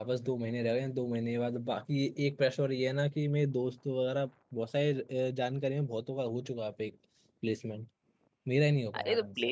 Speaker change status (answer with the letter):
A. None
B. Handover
B